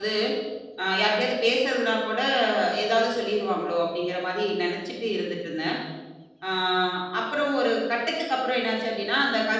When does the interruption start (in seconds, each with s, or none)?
none